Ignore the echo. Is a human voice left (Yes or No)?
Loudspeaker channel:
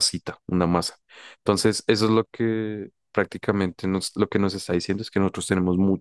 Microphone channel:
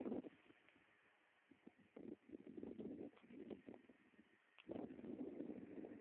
No